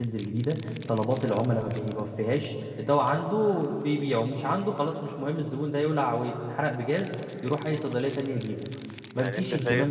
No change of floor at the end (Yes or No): No